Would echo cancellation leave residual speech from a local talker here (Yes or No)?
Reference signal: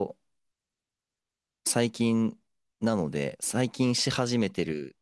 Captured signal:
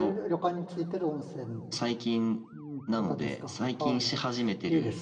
Yes